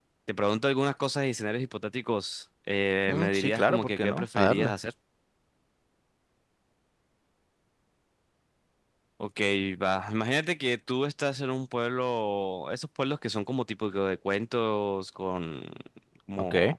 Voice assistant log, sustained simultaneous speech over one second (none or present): present